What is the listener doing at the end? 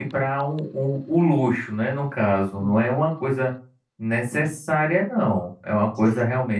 listening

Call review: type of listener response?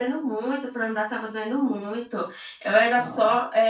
listening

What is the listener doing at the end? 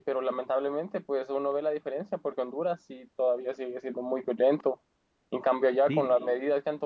listening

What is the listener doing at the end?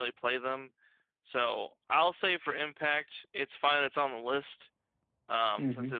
listening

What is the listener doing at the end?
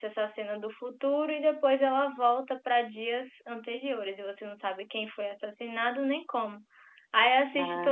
listening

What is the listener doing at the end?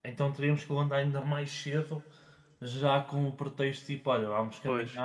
listening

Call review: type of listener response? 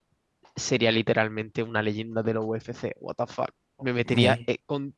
listening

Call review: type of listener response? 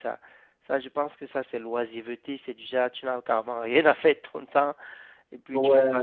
listening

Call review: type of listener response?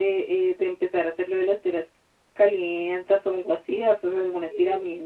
taking over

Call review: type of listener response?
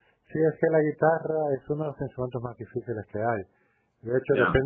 listening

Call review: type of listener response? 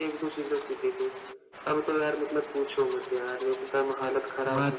taking over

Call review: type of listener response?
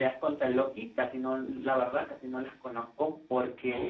listening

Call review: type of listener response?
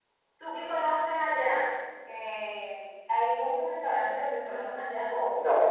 taking over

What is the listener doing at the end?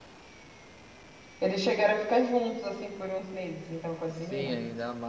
taking over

